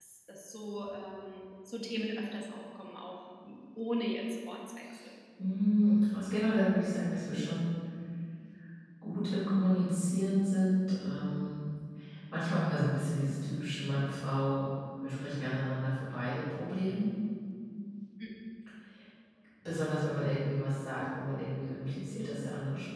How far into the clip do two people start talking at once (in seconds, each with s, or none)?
none